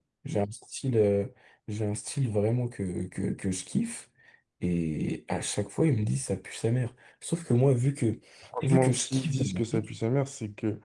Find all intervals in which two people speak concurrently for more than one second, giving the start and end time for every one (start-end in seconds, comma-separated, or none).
8.6-9.9